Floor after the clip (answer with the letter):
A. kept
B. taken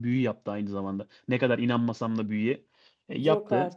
A